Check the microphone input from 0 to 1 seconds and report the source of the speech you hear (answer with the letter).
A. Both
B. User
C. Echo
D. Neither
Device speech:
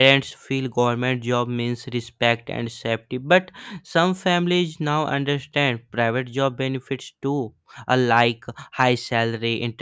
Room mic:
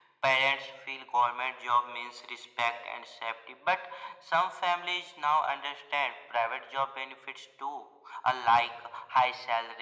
C